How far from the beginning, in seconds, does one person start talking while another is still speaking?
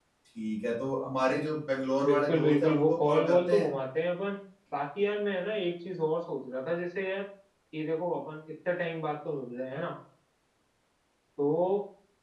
2.0 s

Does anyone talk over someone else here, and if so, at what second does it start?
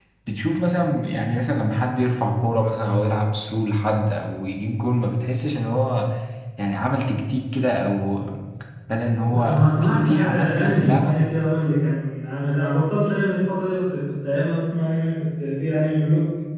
9.3 s

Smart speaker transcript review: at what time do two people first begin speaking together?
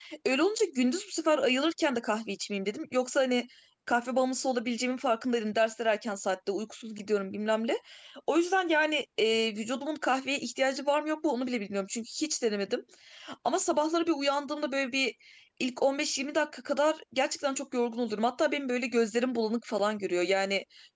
none

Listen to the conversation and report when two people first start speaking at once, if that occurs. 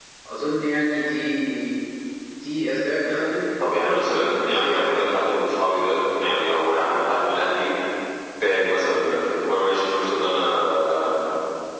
3.6 s

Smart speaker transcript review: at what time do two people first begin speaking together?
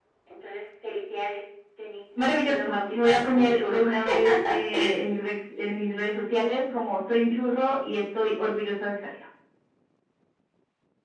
2.2 s

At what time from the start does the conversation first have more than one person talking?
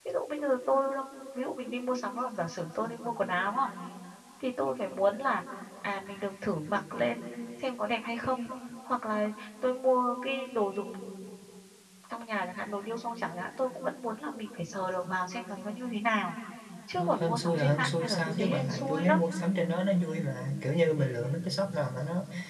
17.2 s

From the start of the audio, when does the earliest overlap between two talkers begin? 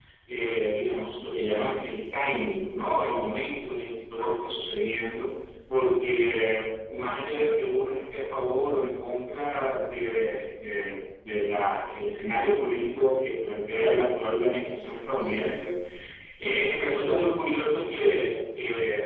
none

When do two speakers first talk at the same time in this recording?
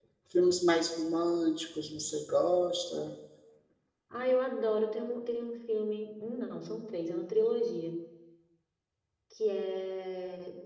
none

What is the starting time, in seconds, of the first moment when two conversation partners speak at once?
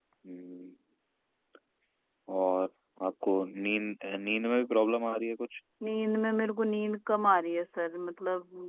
none

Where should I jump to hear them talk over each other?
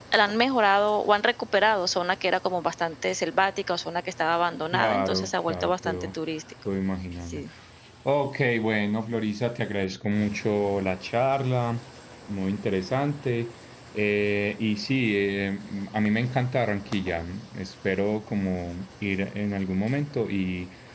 4.7 s

